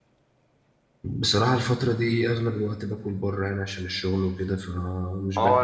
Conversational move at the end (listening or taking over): taking over